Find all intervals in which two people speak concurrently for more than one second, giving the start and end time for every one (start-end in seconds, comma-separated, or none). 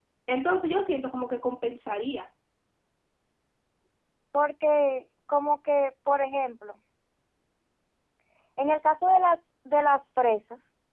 none